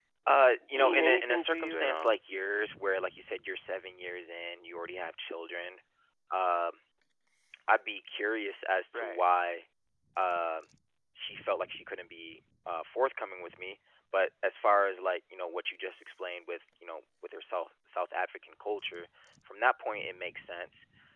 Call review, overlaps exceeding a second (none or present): present